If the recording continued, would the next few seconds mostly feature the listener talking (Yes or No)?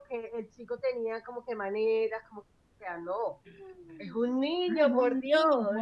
Yes